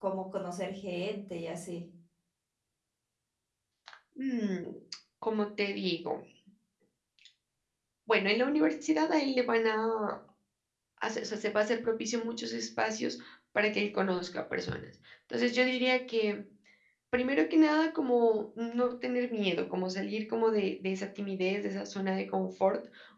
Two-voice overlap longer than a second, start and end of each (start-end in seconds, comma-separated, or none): none